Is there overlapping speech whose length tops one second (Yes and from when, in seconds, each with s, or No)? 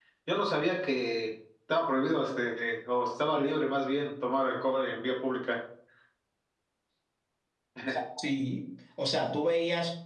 No